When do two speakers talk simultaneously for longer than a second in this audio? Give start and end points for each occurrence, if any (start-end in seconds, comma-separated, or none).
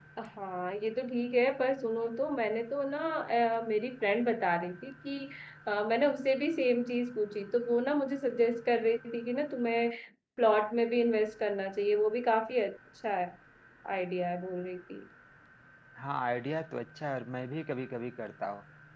none